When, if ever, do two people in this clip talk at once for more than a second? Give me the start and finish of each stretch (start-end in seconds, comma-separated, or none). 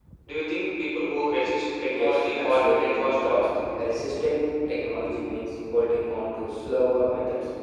1.9-3.3